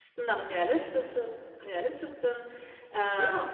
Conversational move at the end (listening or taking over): listening